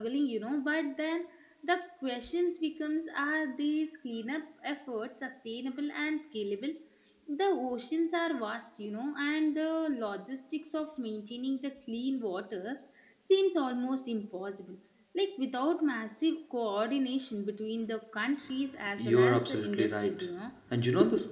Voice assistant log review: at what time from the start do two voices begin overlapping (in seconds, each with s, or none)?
19.0 s